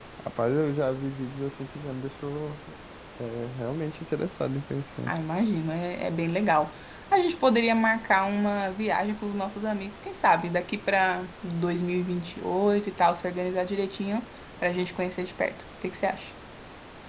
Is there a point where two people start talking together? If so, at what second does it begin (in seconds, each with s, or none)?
none